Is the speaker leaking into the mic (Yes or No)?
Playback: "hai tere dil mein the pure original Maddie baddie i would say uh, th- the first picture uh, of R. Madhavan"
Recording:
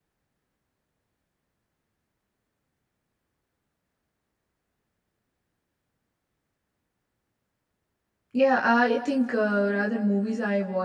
No